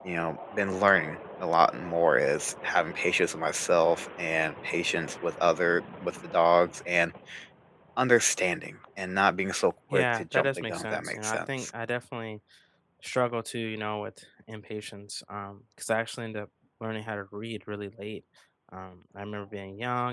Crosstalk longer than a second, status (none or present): present